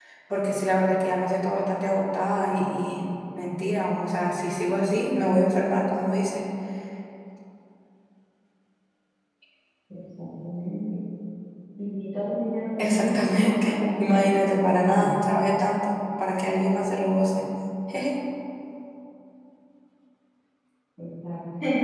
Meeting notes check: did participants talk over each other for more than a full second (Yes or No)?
Yes